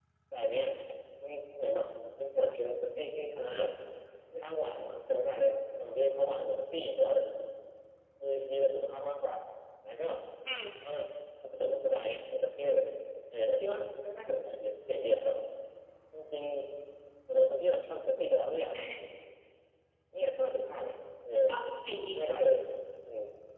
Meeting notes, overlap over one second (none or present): none